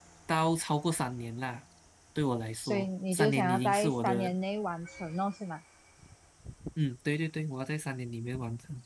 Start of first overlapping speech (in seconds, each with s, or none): 2.6 s